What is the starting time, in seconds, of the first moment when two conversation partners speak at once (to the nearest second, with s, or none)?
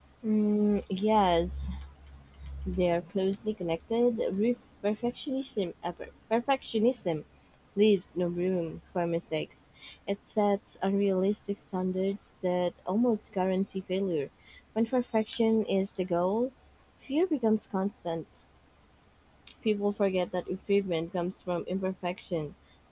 none